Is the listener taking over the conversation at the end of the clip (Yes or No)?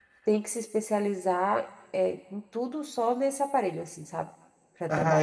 Yes